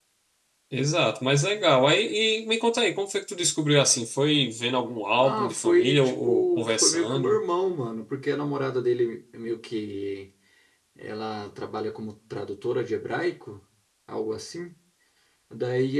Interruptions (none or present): present